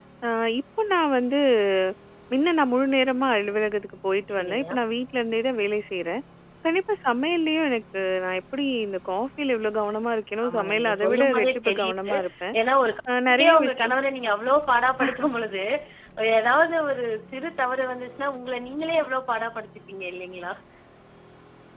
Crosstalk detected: Yes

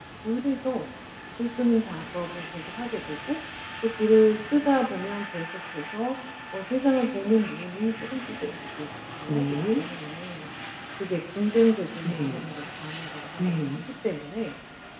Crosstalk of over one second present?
No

